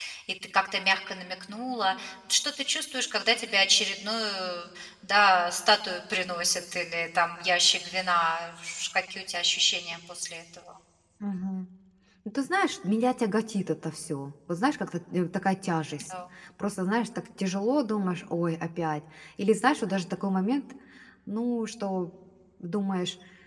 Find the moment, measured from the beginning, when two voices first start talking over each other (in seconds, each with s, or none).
none